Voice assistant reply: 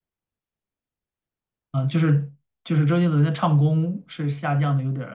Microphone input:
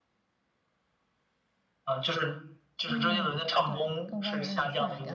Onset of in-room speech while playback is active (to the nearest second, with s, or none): 3 s